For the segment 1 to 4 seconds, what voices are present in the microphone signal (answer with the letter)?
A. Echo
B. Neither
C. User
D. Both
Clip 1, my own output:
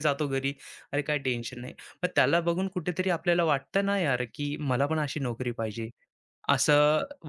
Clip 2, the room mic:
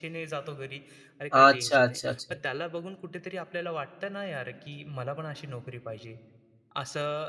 D